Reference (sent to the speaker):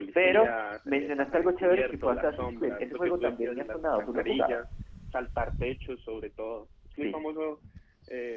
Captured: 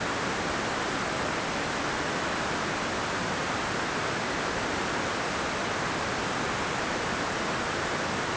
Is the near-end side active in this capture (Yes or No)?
No